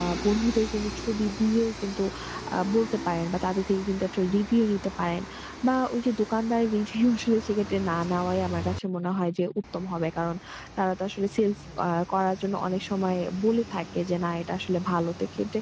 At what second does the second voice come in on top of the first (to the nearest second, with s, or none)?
none